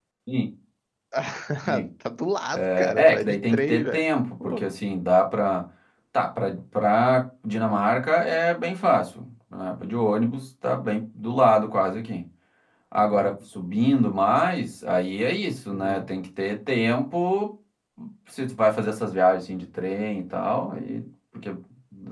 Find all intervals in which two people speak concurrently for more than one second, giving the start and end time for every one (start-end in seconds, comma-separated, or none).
2.6-4.0